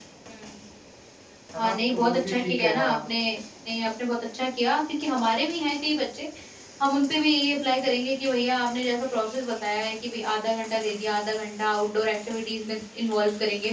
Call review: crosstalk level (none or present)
present